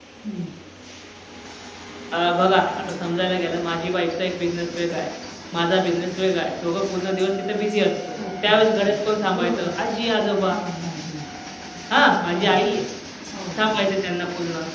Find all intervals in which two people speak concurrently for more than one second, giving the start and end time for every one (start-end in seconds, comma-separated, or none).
none